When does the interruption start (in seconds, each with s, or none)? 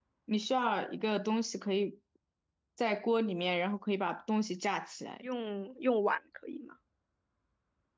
none